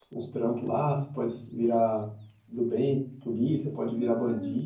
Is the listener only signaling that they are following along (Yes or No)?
No